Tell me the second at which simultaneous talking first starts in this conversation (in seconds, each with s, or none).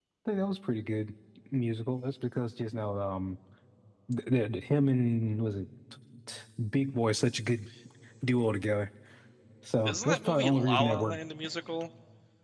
9.8 s